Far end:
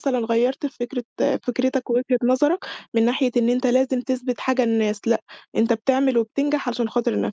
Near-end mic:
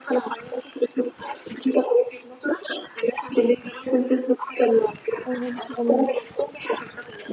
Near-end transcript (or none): أيوه، ما شاء الله،